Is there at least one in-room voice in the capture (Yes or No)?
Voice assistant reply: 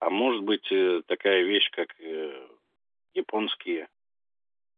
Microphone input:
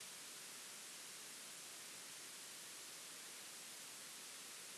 No